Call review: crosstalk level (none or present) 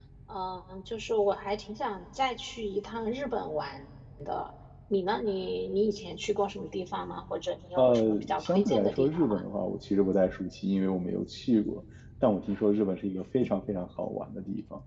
present